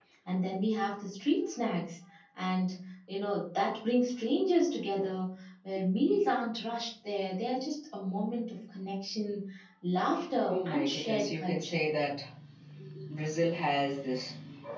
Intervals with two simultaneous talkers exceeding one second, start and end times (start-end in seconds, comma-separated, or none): 10.5-11.8